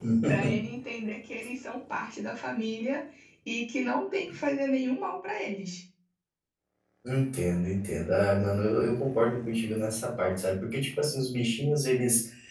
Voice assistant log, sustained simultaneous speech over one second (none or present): none